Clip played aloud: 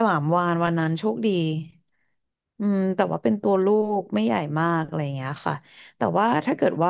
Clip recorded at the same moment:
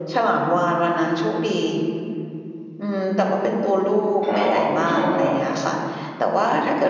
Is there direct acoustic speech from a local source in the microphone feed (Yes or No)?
Yes